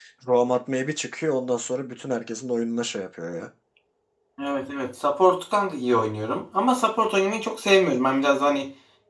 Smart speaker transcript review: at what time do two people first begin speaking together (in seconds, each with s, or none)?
none